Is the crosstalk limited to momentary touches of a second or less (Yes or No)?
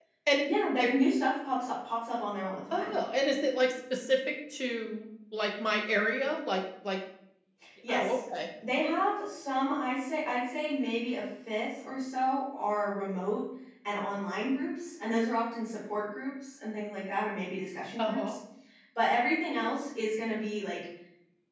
Yes